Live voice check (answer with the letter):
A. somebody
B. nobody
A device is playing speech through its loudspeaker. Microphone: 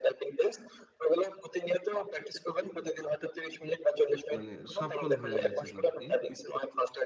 A